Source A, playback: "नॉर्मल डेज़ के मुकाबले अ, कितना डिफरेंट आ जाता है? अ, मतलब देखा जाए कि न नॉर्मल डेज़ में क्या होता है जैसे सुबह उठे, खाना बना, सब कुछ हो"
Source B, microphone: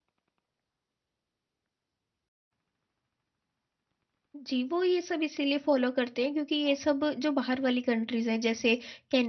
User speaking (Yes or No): Yes